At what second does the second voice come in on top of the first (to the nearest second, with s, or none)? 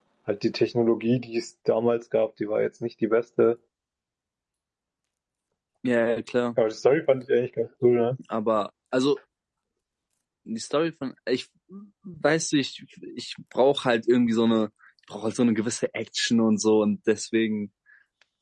none